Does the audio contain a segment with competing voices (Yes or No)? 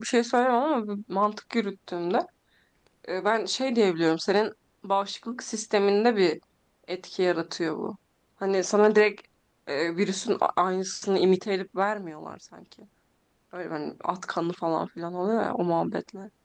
No